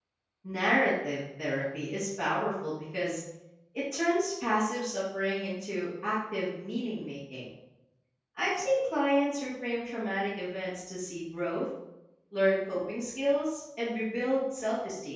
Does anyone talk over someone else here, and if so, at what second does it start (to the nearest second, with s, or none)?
none